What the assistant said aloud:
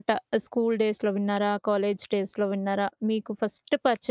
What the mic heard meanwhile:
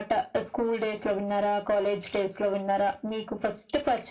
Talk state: echo only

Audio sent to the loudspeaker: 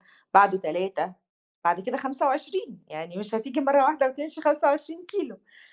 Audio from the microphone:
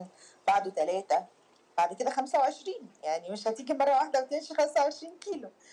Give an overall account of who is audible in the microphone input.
echo only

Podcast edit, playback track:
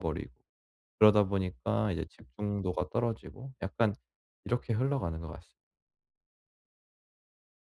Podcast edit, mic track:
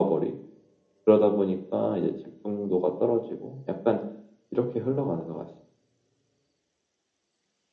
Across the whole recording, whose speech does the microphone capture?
echo only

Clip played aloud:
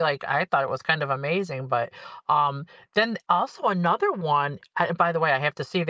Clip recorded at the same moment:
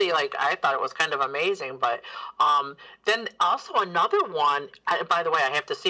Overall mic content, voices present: echo only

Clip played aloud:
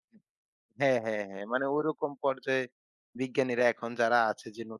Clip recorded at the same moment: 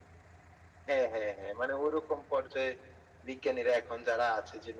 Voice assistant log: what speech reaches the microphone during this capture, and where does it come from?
echo only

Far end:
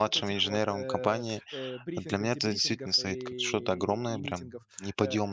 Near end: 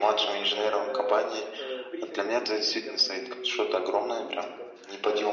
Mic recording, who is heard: echo only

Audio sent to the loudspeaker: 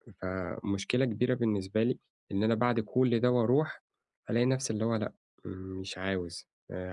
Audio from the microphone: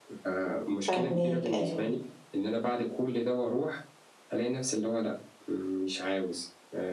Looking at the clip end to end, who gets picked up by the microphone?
both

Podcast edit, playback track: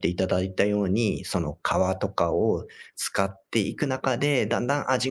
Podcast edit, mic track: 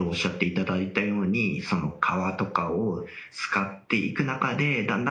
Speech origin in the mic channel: echo only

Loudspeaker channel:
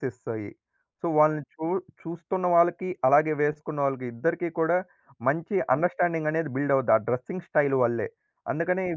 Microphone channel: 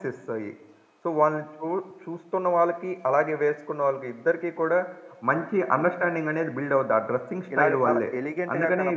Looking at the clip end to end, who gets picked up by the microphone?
both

